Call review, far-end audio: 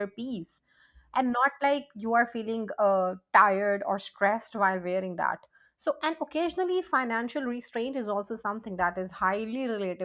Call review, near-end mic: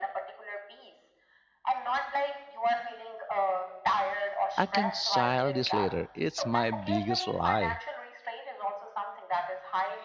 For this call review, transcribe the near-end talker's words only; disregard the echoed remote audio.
I can style this later. It's my biggest lie.

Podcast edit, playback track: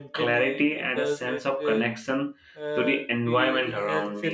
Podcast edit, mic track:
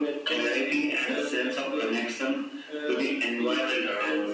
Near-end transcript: none

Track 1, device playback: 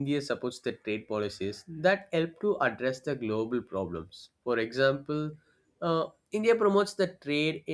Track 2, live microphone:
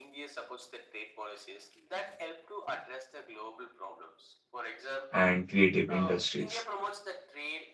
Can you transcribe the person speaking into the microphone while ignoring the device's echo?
and creative industries.

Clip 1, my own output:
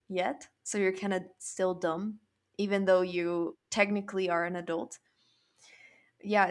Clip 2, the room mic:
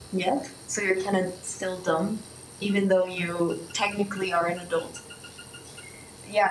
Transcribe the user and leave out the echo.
none

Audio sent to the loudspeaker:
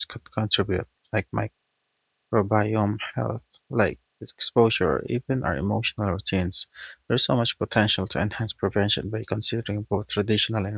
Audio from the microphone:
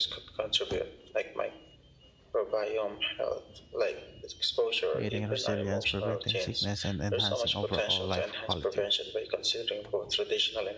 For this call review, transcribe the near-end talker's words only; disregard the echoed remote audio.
creating resilience, preventing sickness, and enhancing overall life quality.

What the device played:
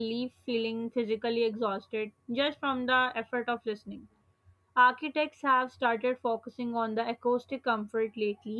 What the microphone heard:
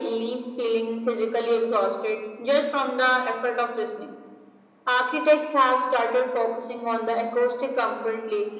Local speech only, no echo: none

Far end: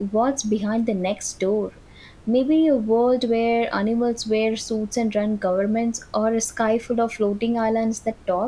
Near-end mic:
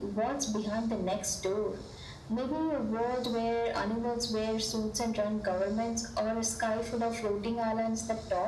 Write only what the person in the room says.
none

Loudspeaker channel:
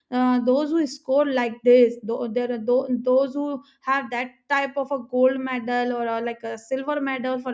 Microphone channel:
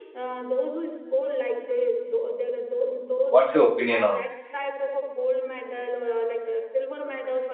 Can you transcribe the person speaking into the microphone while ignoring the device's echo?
what's your opinion on this

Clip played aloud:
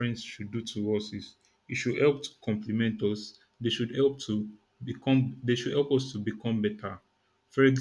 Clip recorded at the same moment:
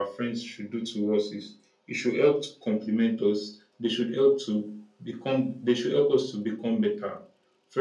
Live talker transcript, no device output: none

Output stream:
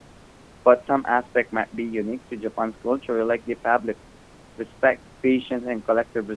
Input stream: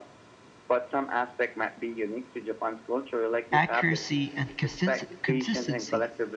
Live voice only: accuracy, and consist- consistency.

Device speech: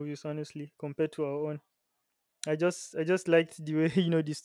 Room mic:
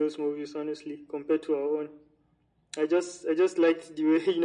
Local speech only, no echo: none

